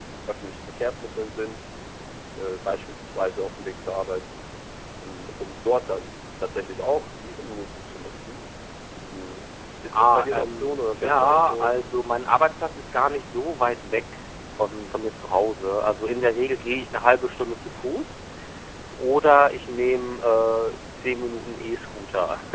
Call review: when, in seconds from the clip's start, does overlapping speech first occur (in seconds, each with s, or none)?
9.9 s